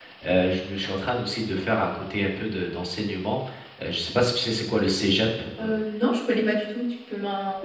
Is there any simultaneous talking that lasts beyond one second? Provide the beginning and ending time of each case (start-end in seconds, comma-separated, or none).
none